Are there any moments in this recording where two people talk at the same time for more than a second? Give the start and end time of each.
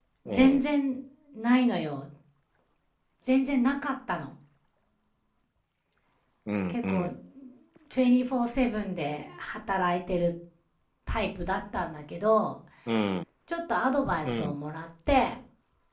none

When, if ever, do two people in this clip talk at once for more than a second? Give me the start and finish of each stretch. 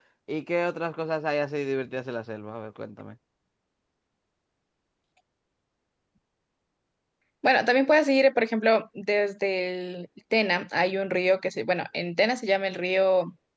none

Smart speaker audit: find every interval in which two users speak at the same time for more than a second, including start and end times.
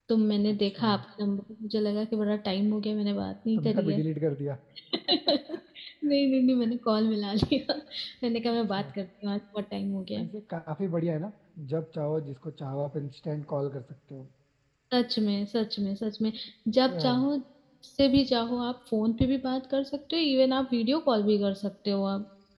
none

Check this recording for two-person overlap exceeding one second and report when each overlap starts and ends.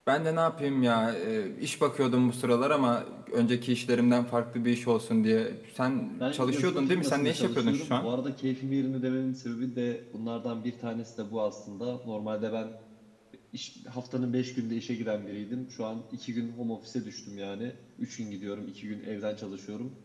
6.2-8.1

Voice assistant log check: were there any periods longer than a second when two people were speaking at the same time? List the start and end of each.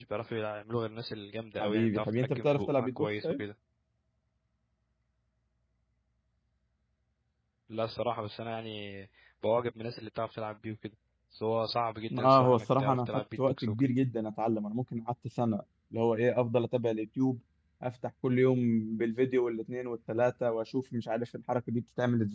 1.6-3.4, 12.2-13.9

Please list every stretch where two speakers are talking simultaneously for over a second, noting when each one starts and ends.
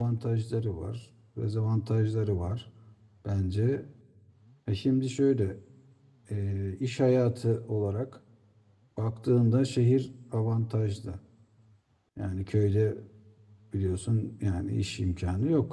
none

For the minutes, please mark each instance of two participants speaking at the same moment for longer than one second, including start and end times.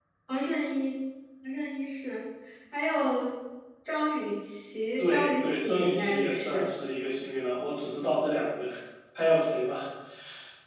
5.0-6.7

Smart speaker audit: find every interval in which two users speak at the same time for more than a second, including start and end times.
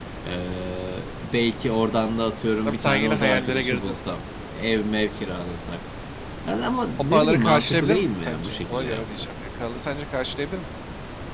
2.6-4.0, 7.0-9.3

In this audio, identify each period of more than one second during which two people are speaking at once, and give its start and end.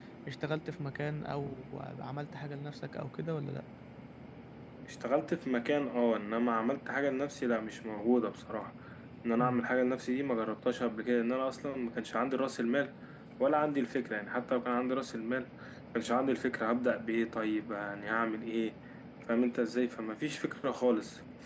none

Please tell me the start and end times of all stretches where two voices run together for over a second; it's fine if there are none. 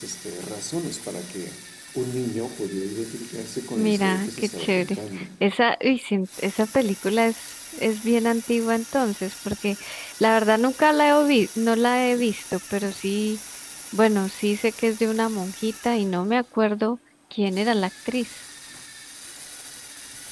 3.8-5.2

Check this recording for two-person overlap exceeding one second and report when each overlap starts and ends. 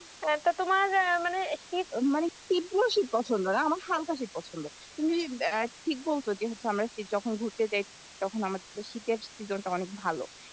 none

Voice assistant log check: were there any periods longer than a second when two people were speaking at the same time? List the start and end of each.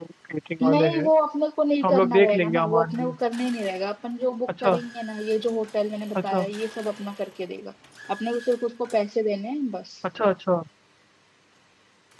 1.8-3.1

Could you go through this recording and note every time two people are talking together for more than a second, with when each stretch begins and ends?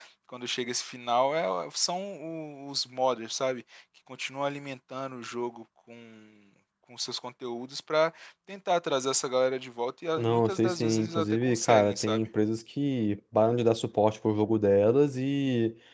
10.2-12.3

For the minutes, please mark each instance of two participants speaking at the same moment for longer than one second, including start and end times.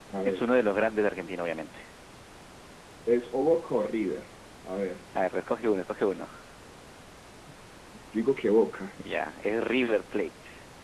none

